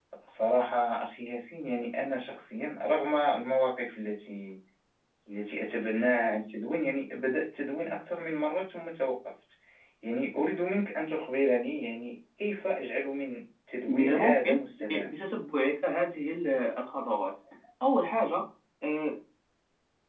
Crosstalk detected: Yes, from 13.9 s

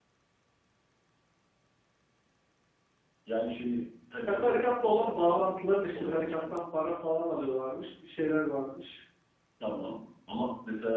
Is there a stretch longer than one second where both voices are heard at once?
Yes, from 4.3 s

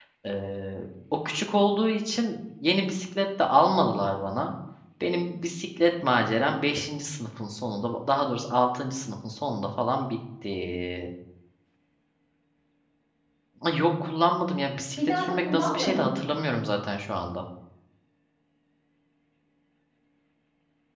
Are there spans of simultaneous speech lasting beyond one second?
Yes, from 15.0 s

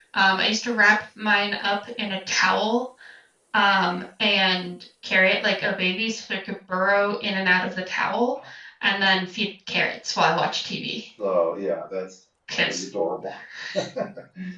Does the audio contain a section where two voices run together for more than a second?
No

